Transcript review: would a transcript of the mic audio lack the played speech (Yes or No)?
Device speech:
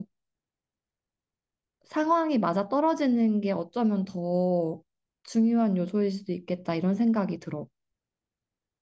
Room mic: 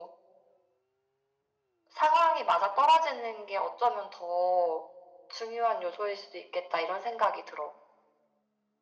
No